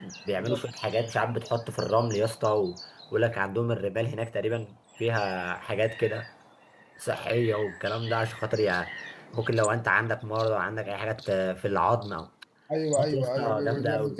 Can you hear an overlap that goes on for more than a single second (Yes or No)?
Yes